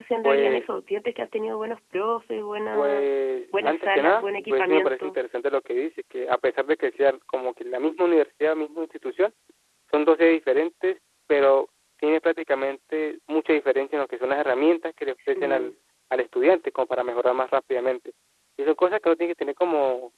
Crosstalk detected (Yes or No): Yes